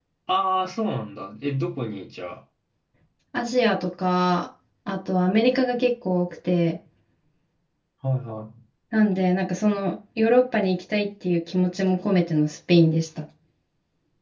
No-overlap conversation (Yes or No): Yes